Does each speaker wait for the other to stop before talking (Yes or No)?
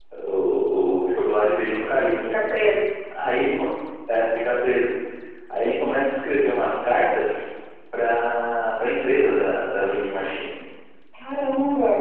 Yes